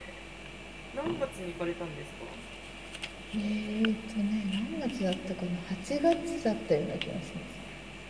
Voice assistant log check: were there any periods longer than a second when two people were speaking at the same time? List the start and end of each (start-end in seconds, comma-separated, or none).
none